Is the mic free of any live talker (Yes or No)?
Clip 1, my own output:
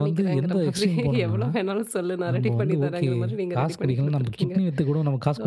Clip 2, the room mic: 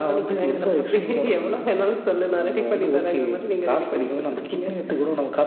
Yes